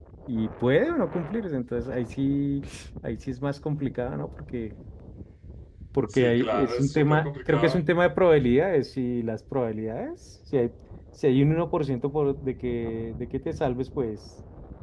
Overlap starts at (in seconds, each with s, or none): 6.1 s